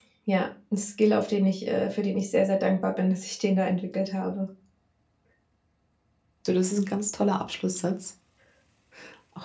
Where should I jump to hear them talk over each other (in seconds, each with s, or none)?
none